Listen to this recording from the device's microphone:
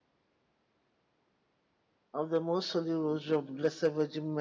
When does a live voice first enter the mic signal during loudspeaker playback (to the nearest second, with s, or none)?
2 s